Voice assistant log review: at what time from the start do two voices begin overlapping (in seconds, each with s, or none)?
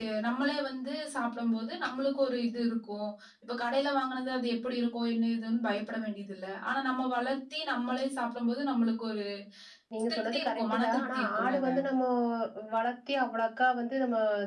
10.1 s